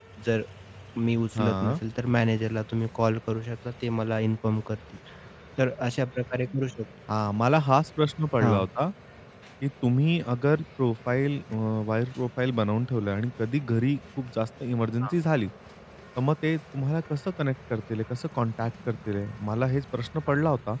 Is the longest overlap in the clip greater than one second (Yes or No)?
No